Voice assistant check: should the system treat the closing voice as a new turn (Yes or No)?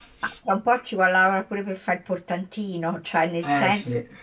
No